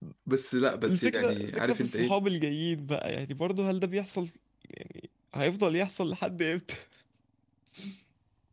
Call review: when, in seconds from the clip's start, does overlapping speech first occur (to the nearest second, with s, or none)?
1 s